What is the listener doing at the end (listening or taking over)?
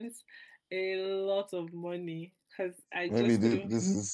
taking over